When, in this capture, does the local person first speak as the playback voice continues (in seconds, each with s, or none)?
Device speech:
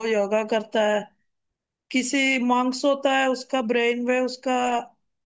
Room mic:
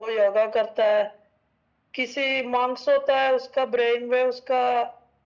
none